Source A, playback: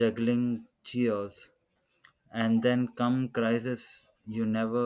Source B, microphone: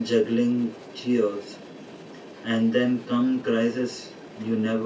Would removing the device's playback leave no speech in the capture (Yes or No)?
Yes